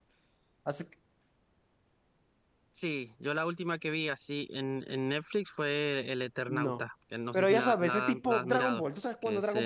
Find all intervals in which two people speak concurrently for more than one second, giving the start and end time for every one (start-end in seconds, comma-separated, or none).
7.3-8.8